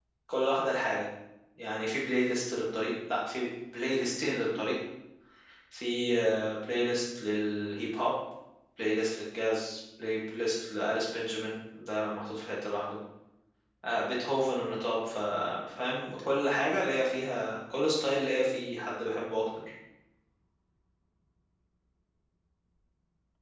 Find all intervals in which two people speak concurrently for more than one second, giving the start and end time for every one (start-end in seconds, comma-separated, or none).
none